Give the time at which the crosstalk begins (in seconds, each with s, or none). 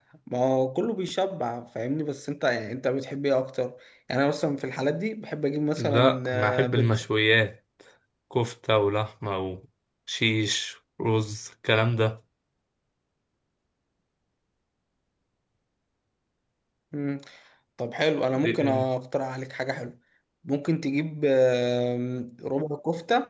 5.8 s